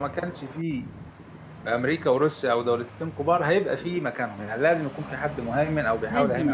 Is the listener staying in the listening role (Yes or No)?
No